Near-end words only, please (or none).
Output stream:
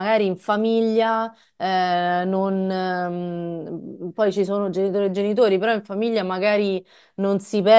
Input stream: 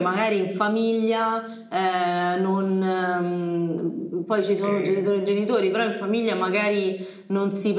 E-